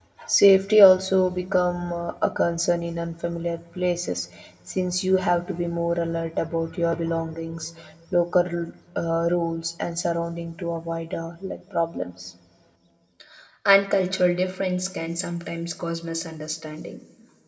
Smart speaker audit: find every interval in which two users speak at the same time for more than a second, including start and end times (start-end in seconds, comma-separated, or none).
none